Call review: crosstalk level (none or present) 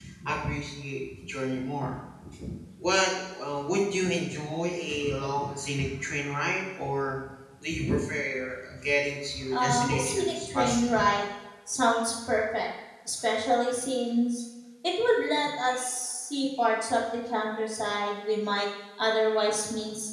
present